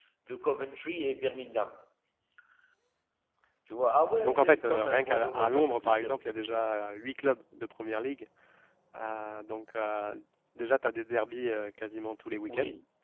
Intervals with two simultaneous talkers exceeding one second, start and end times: 4.2-6.1

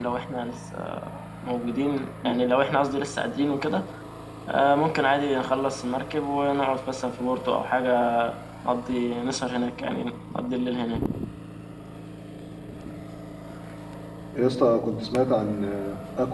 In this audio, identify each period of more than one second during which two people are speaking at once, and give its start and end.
none

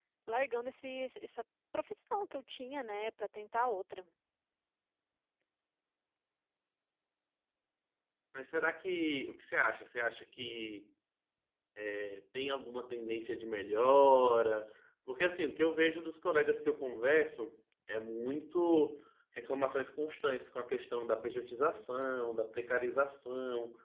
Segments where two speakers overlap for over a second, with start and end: none

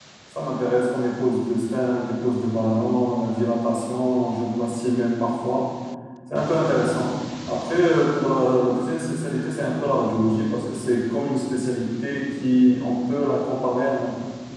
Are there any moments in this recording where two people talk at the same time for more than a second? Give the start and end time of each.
none

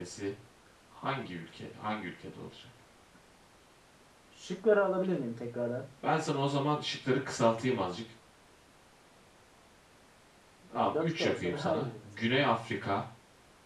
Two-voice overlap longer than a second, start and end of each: 10.7-12.3

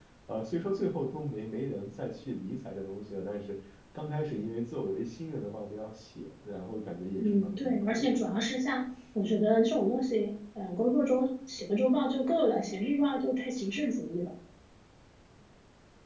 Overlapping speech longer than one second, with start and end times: 7.2-8.4

